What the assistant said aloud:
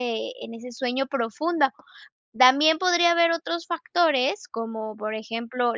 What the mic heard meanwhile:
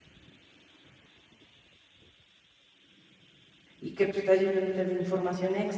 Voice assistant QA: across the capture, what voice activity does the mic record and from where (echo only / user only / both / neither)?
user only